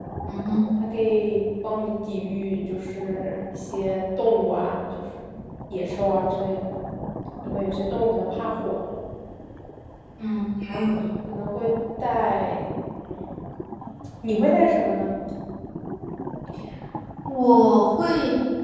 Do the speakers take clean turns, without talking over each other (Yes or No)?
Yes